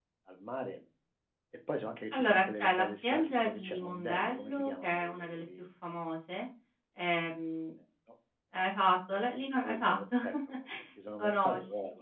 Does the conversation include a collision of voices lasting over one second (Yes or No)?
Yes